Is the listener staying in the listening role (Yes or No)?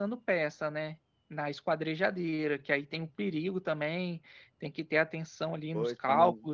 No